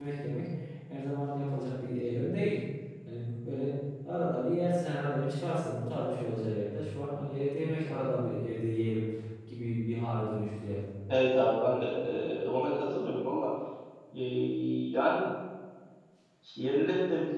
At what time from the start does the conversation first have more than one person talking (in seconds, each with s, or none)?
none